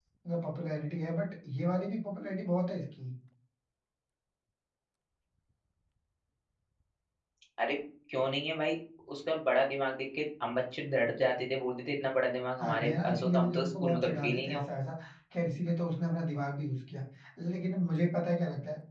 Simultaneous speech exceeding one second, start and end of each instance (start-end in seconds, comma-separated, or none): 12.6-14.6